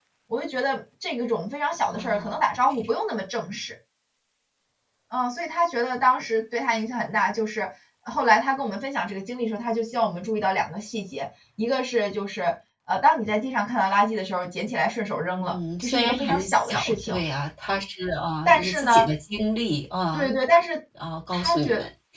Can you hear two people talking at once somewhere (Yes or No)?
Yes